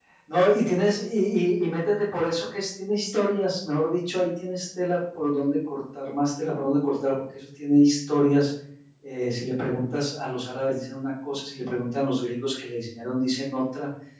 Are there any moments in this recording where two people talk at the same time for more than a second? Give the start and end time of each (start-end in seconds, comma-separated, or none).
none